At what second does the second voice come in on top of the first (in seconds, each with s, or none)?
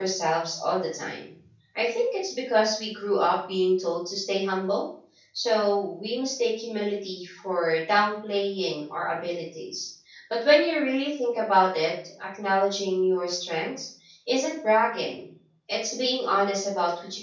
none